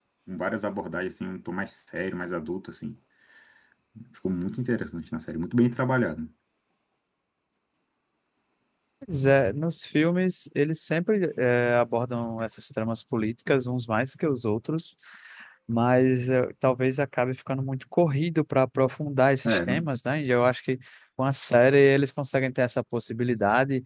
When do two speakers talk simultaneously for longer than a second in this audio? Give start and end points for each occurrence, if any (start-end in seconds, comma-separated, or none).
none